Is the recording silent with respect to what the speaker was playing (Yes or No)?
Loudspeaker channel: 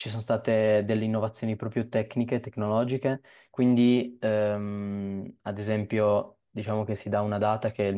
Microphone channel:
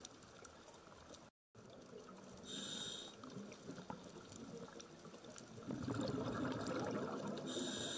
Yes